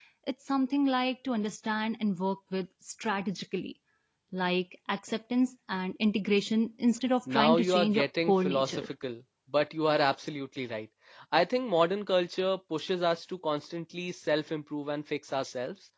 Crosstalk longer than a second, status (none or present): present